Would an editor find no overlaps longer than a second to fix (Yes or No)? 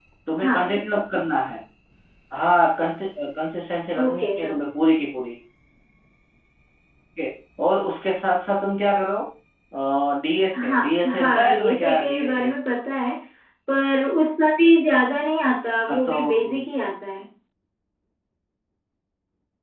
No